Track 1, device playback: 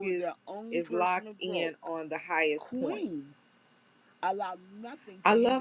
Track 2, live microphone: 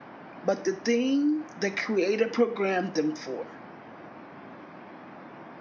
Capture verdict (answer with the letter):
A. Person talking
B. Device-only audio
A